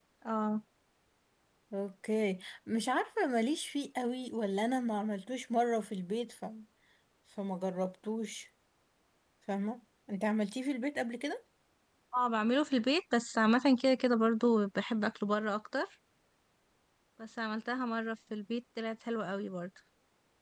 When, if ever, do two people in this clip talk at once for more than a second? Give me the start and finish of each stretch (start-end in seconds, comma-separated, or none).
none